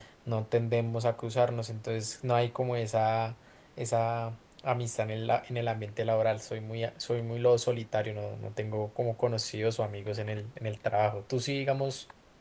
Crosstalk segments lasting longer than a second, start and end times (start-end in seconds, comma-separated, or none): none